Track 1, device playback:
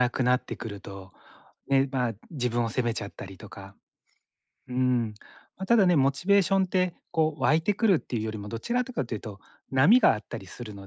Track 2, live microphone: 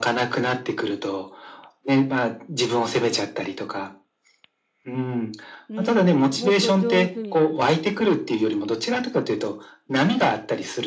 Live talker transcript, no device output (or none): うん、もっと上手に、